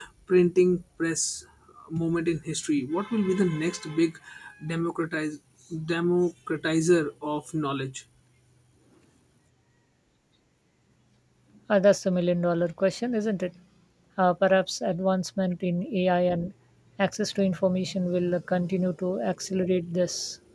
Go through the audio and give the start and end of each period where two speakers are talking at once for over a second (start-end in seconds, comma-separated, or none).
none